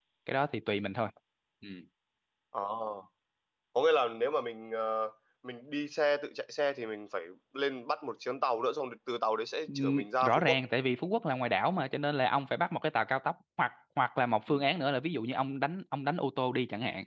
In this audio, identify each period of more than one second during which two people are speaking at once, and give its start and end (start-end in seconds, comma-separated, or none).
none